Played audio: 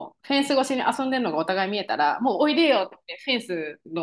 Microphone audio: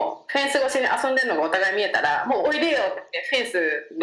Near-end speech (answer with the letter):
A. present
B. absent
B